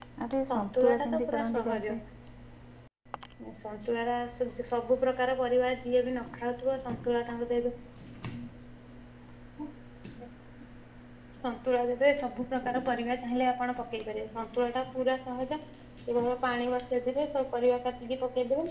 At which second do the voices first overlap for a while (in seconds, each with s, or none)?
0.5 s